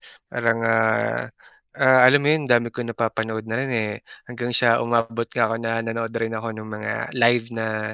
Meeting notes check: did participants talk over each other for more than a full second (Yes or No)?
No